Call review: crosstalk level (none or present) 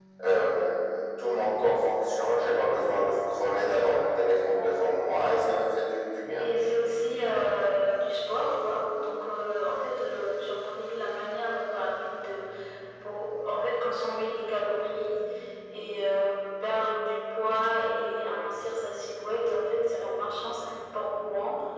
none